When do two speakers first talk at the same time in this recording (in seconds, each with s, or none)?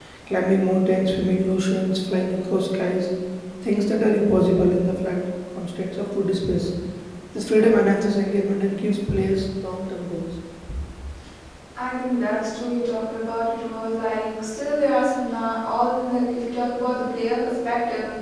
none